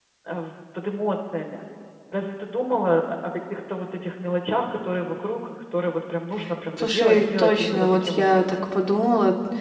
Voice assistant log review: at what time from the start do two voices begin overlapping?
7 s

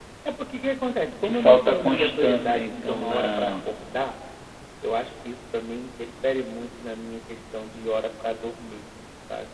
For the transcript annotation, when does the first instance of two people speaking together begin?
1 s

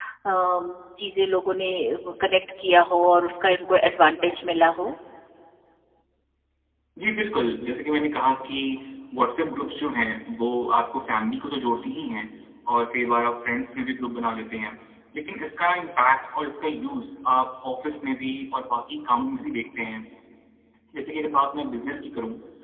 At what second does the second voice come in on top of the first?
none

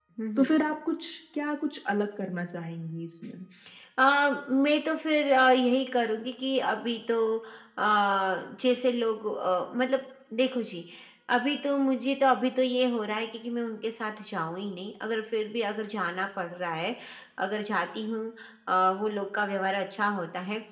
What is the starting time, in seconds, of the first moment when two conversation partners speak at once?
none

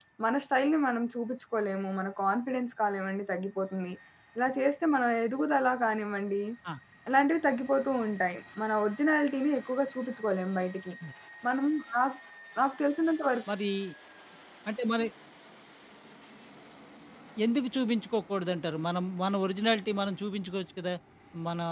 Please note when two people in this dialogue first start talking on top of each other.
none

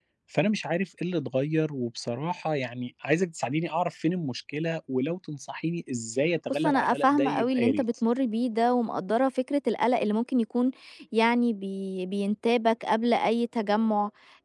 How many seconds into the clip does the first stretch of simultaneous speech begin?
7 s

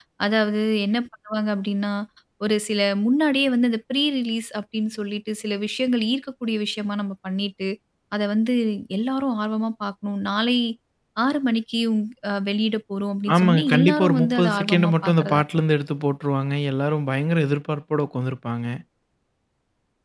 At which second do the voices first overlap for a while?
13 s

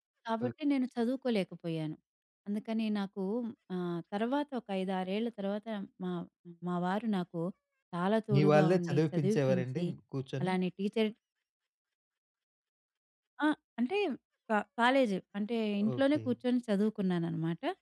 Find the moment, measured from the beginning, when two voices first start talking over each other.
8 s

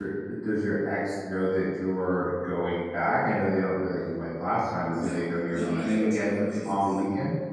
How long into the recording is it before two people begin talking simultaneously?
5 s

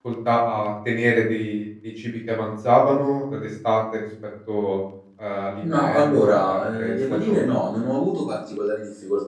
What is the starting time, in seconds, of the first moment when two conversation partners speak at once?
6 s

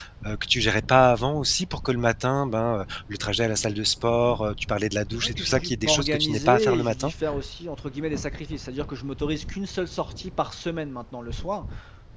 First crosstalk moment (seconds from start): 5 s

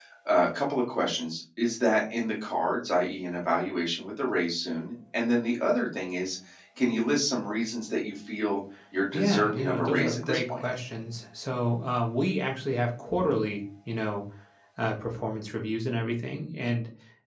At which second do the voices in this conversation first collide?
9 s

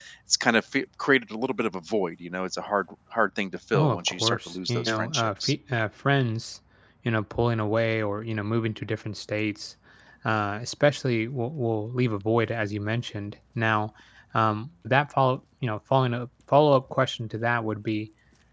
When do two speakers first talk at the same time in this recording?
4 s

